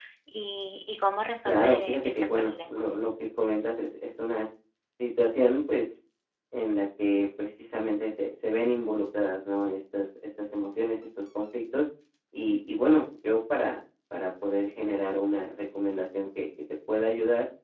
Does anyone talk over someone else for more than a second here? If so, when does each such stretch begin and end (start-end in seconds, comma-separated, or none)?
1.4-2.8